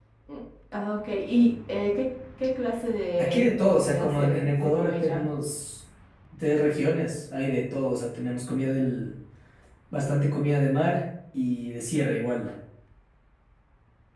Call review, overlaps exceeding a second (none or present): present